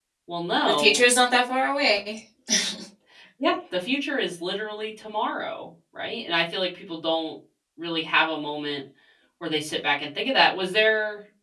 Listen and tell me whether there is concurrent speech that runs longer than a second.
No

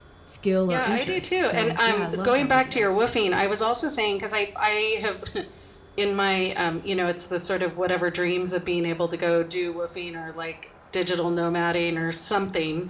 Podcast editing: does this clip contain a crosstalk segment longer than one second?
Yes, from 0.7 s

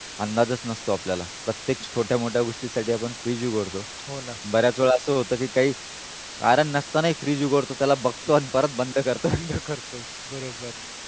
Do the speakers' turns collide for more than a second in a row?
No

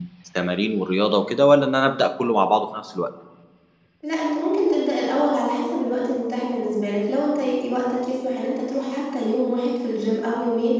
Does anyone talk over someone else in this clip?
No

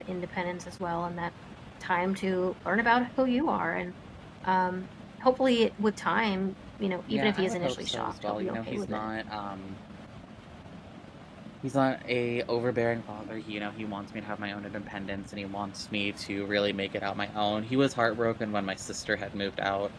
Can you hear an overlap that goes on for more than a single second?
Yes, from 7.1 s

